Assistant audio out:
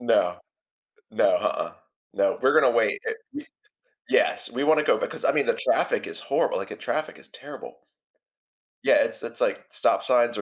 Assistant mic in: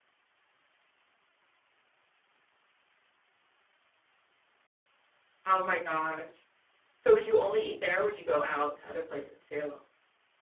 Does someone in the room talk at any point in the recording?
Yes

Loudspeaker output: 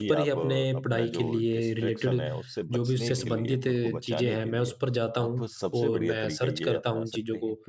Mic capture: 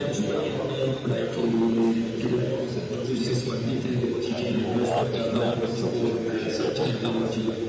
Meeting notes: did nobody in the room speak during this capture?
No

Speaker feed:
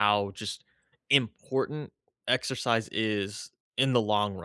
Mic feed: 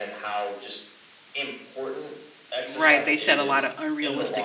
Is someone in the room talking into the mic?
Yes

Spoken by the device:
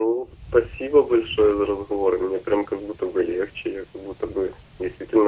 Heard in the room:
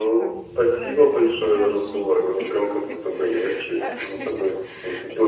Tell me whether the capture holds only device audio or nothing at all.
No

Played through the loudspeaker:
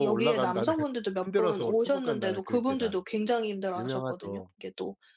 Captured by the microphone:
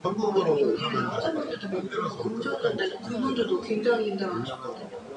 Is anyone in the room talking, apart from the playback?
Yes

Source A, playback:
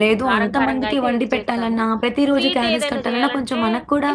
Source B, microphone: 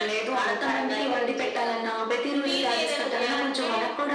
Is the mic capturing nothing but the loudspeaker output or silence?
Yes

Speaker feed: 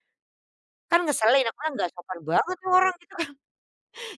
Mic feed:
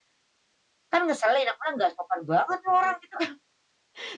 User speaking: No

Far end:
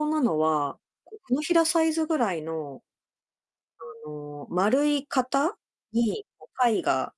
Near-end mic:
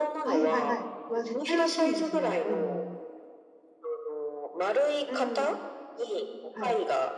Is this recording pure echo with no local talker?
No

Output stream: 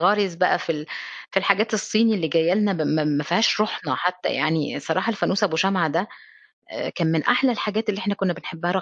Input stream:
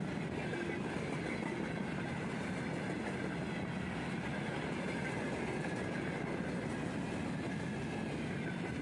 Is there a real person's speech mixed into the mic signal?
No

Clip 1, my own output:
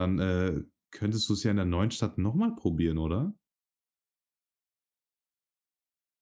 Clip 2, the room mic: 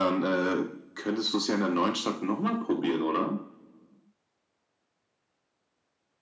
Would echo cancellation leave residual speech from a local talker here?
No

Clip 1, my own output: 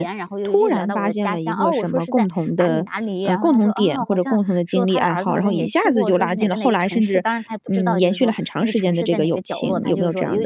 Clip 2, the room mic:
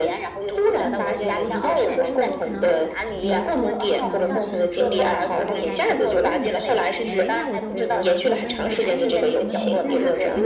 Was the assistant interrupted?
Yes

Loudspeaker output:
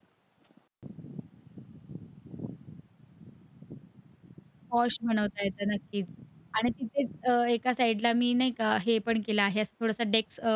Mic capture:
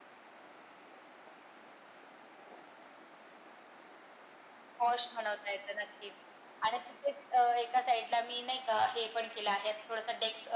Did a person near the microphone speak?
No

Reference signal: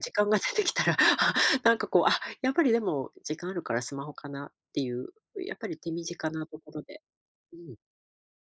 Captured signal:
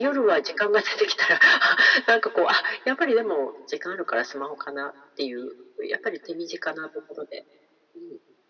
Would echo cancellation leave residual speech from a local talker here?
No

